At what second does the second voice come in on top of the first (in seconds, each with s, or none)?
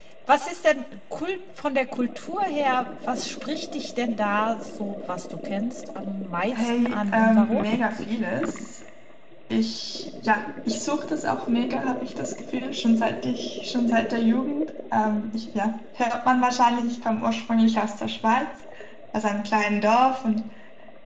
6.5 s